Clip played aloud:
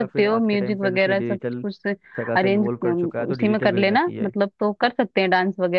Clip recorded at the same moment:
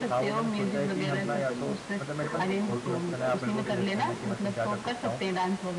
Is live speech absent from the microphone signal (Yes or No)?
No